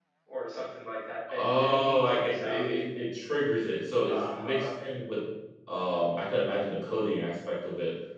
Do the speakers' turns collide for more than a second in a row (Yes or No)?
Yes